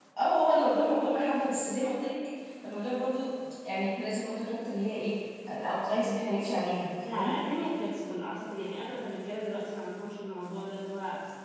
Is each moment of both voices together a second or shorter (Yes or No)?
Yes